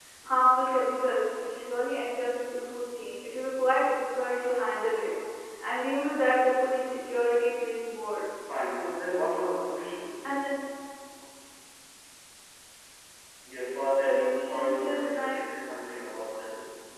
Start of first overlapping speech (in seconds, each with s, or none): 14.0 s